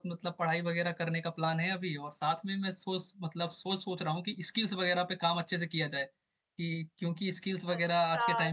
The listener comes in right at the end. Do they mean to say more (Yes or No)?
Yes